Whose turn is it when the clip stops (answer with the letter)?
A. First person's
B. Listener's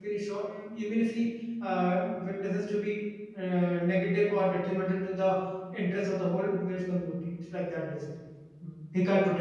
B